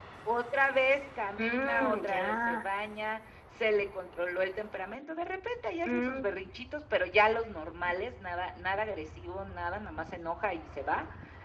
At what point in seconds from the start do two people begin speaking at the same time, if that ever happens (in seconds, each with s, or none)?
1.4 s